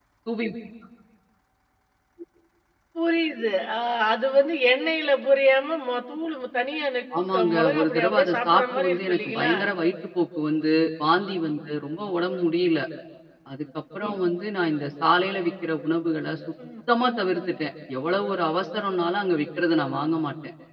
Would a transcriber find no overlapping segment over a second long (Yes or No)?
No